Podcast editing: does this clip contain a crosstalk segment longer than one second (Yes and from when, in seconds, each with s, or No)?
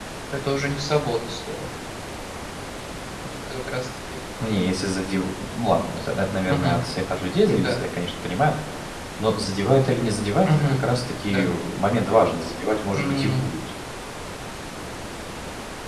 No